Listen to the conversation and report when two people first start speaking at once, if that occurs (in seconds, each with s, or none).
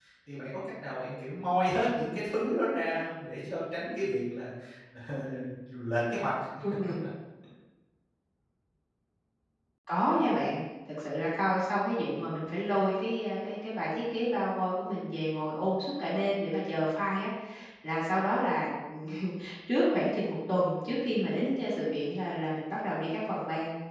none